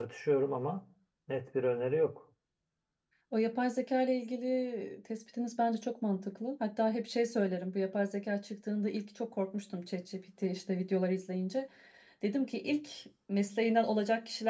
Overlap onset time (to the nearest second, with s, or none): none